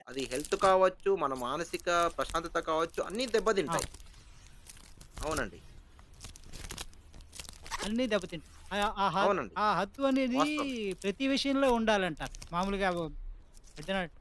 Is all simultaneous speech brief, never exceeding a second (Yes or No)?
Yes